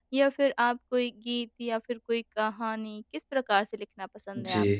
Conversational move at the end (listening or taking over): taking over